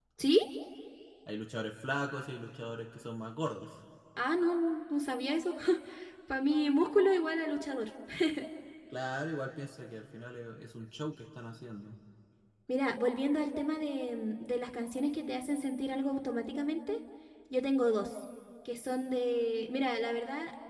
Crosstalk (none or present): none